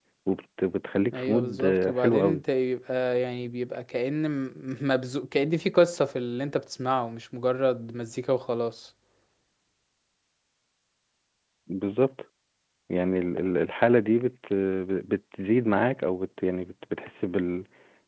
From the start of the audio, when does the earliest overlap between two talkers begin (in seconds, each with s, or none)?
1.1 s